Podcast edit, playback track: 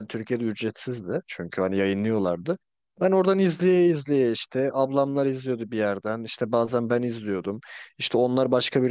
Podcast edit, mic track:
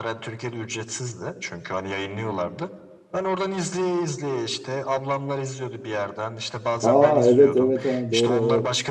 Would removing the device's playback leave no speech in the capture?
No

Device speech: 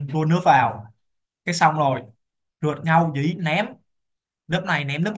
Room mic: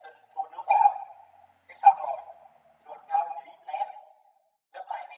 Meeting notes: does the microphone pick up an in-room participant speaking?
No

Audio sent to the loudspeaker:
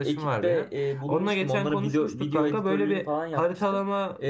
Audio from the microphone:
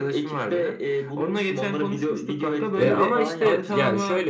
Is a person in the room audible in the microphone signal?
Yes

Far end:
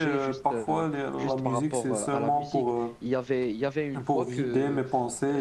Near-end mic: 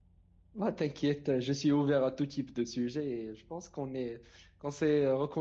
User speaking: Yes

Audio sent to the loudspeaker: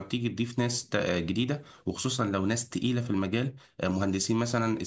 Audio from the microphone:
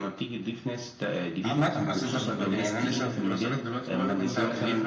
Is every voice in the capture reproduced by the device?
No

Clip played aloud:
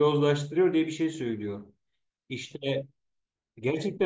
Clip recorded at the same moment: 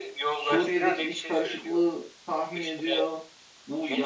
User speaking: Yes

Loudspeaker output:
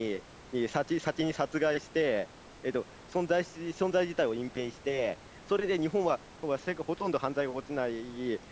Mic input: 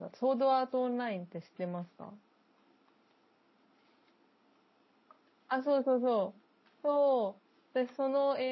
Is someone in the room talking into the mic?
Yes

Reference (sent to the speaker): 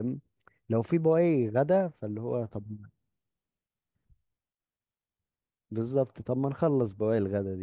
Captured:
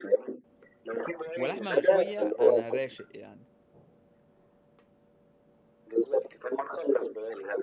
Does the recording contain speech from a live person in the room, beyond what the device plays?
Yes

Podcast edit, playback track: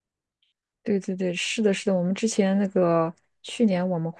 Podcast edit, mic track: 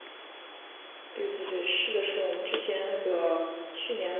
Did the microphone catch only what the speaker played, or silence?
Yes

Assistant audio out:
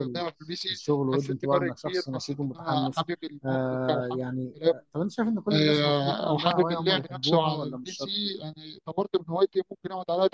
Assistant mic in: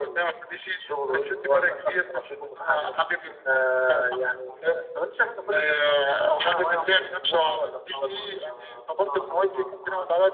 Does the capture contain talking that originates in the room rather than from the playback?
Yes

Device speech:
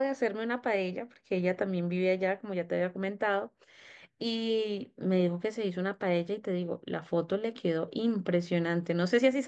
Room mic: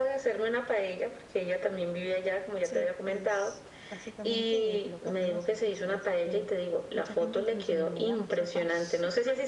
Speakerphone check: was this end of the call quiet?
No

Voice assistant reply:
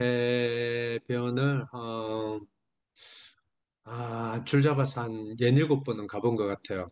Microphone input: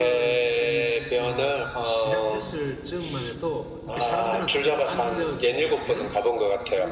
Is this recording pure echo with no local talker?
No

